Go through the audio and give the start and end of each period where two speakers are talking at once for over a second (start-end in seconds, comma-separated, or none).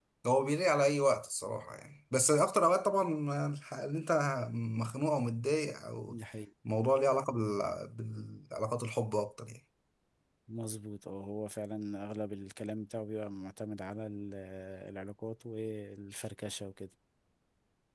none